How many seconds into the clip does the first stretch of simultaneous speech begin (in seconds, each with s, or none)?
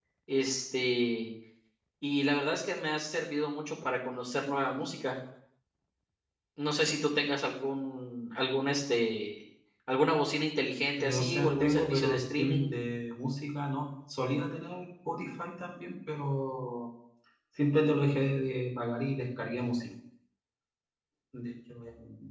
11.0 s